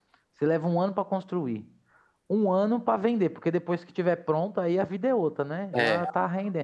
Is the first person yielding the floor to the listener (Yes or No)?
No